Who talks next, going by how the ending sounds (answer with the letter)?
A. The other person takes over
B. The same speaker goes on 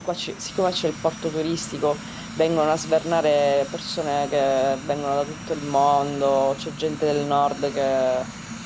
B